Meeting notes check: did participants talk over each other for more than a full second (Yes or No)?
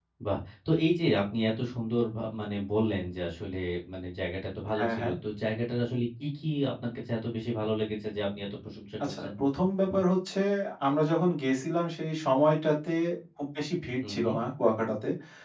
No